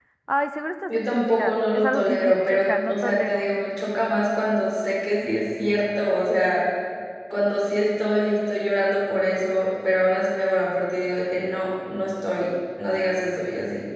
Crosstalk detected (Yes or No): Yes